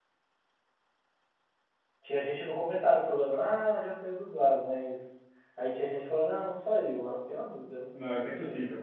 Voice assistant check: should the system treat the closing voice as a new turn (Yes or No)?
Yes